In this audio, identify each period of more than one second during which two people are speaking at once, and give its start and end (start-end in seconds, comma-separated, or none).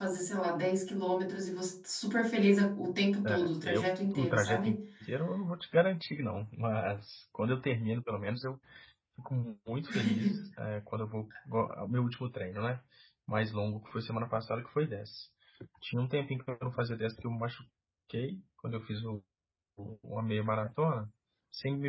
3.2-4.8